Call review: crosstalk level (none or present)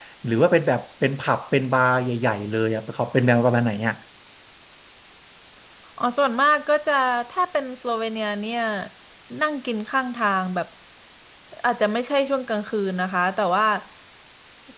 none